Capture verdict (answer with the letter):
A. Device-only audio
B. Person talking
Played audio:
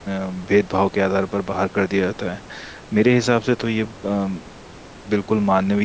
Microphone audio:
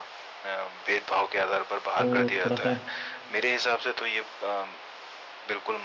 B